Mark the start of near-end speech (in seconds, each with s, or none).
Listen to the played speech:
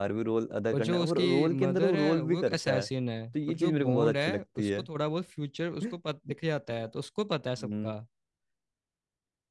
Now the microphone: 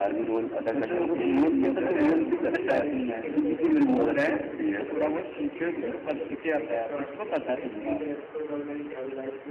2.4 s